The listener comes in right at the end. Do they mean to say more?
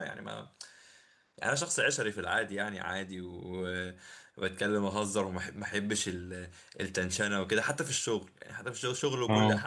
No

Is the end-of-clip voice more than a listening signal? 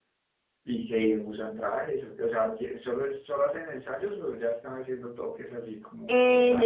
Yes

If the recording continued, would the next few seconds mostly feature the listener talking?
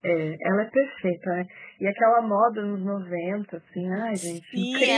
Yes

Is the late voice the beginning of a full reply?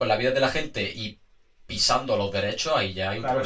Yes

